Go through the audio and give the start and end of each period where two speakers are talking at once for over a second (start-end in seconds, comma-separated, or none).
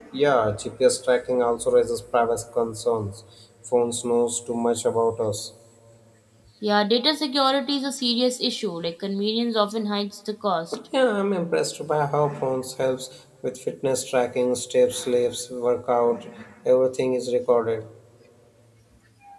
none